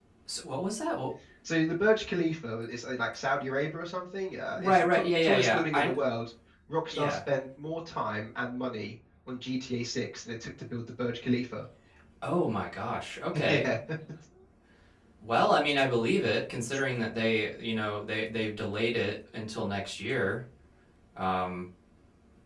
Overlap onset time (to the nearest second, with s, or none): 5 s